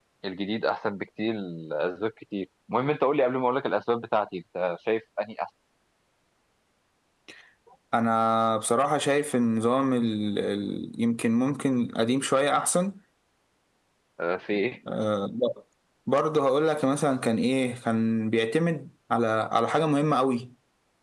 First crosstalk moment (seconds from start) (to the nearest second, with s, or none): none